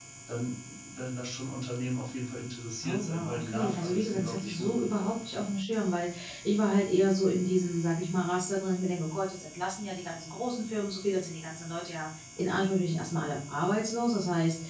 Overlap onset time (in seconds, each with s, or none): 2.8 s